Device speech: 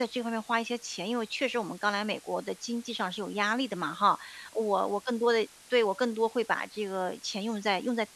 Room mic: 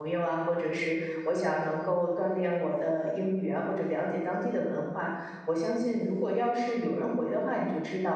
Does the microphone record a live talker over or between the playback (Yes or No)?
Yes